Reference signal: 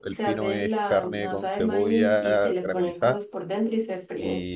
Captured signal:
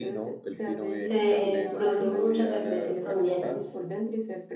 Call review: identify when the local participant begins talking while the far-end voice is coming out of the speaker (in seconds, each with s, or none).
1.0 s